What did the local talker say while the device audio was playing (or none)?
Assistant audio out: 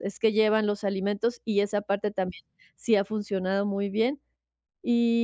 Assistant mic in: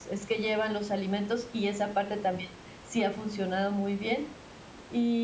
none